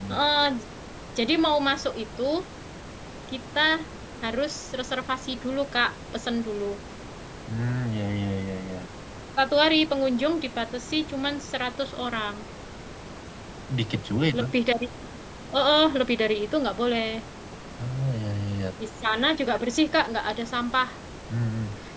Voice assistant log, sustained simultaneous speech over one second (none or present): none